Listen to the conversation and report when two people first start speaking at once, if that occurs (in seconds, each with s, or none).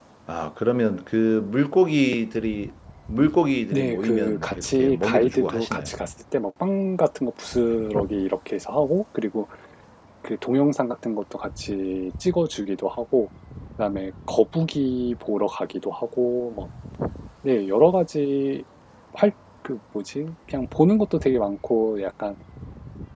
3.7 s